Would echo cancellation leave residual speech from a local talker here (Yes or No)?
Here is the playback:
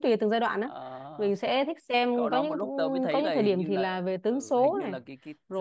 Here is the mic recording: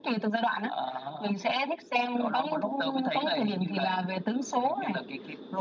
No